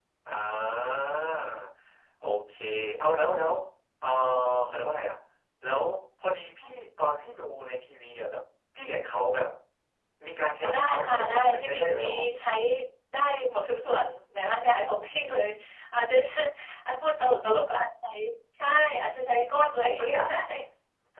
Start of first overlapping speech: 10.6 s

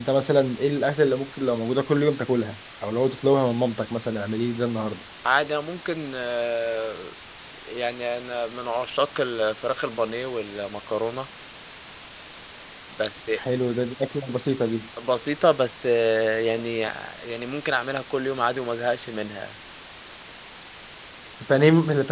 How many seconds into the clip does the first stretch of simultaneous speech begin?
none

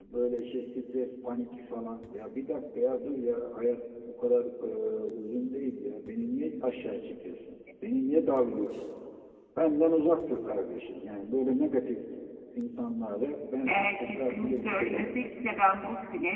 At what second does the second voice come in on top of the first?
13.7 s

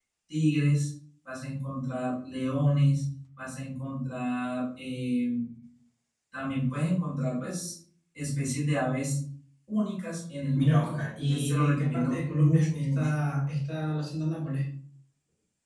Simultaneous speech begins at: 10.6 s

